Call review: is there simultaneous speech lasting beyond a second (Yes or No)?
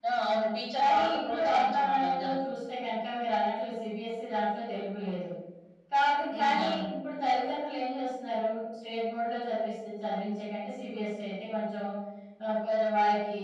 Yes